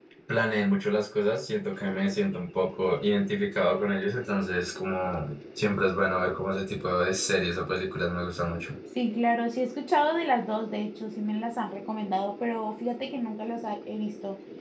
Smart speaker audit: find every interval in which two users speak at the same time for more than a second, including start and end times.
none

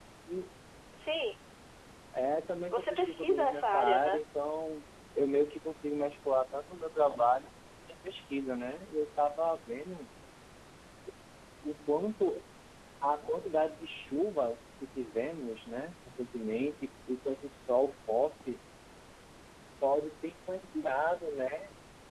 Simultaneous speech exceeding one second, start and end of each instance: 2.7-4.2

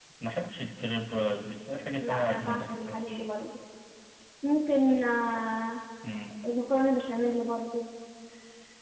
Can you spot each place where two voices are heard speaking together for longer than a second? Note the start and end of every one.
2.0-3.2

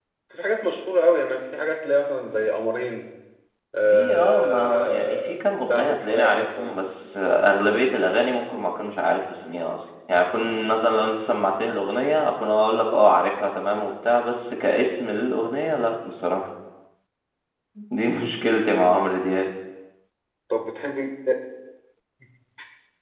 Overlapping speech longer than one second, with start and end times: 3.9-6.8

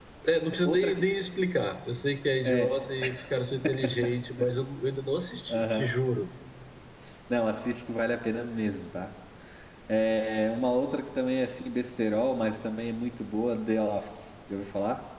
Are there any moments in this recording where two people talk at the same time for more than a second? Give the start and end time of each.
none

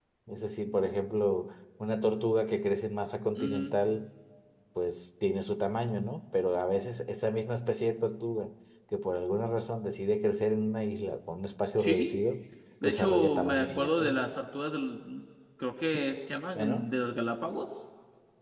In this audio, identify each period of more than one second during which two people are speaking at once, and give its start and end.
12.8-14.4

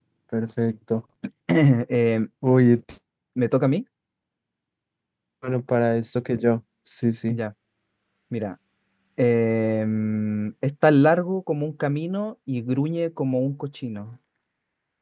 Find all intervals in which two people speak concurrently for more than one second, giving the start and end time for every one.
none

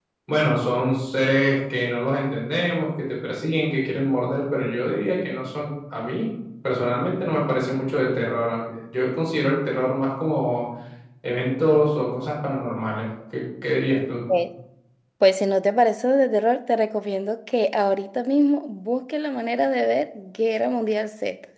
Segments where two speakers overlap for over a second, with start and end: none

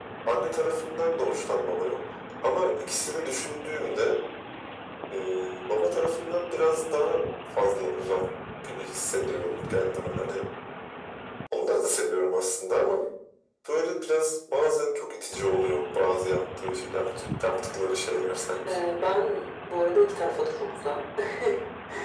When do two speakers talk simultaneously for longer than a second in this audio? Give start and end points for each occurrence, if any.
none

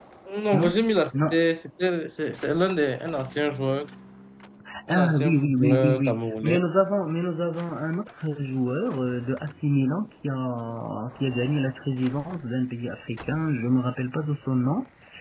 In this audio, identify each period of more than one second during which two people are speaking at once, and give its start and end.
4.9-6.6

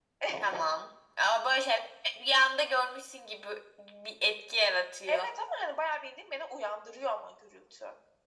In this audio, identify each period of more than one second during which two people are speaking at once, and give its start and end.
none

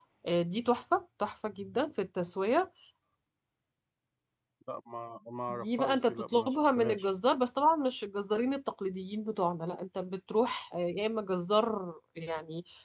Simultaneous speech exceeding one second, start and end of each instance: 5.5-7.1

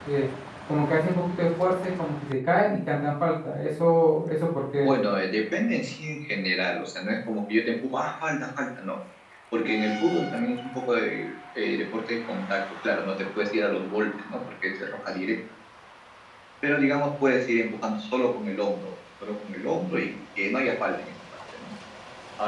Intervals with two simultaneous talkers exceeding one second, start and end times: none

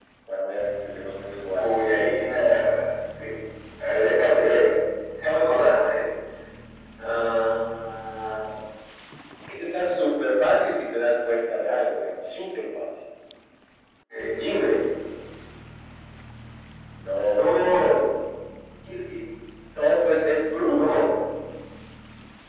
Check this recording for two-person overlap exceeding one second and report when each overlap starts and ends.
none

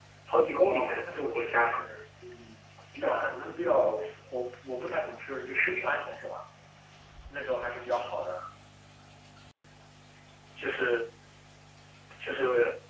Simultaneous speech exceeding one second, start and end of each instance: 0.6-1.8

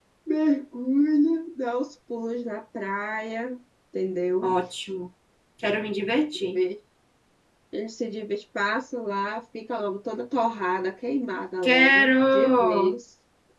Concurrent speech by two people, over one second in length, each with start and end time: 11.6-12.9

